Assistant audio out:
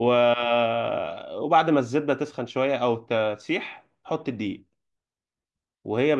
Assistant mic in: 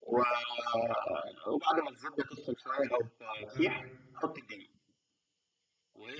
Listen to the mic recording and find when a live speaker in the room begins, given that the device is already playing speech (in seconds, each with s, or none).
3.5 s